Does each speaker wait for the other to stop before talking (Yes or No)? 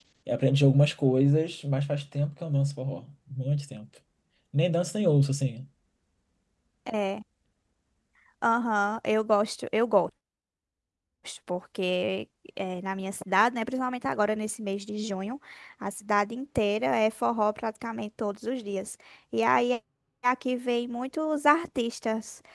Yes